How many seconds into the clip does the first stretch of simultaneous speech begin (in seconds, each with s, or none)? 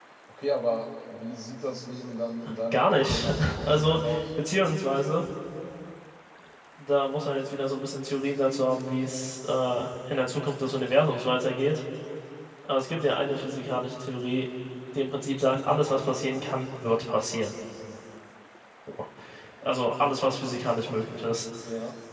2.7 s